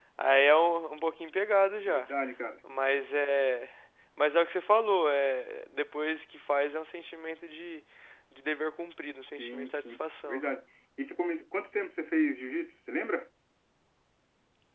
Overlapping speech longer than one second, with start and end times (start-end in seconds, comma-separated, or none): 9.2-10.4